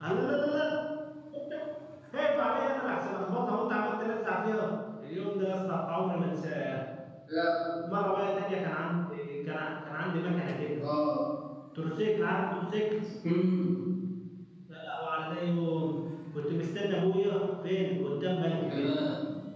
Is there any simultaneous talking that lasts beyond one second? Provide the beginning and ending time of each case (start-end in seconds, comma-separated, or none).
none